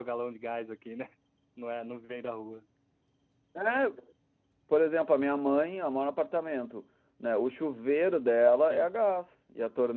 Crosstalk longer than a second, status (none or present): none